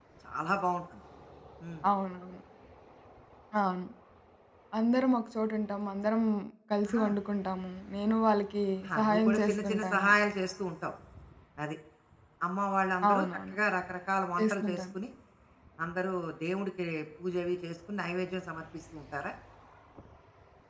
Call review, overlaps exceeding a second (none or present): present